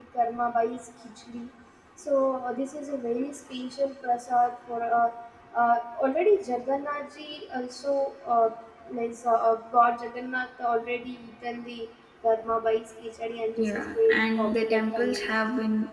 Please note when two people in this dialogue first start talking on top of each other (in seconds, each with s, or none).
13.6 s